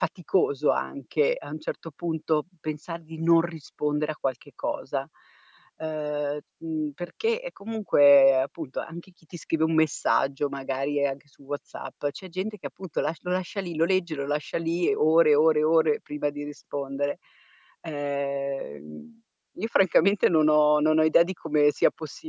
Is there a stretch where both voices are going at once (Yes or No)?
No